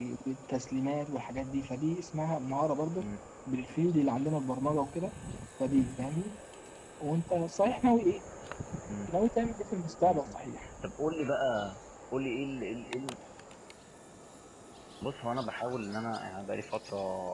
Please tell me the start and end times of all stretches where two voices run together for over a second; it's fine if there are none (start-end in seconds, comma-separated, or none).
none